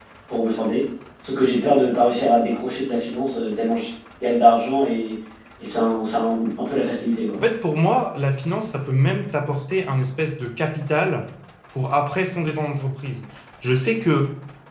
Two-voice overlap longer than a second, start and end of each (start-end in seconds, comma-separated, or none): none